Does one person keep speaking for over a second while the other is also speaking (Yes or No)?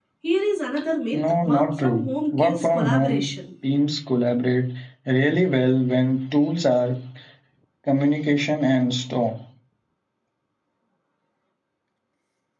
Yes